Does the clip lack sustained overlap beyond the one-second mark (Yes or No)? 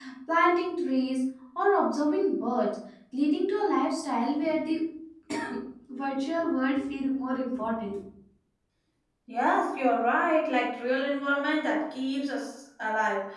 Yes